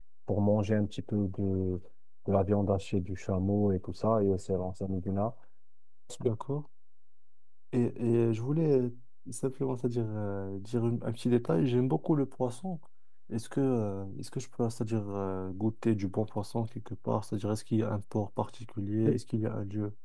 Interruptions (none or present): none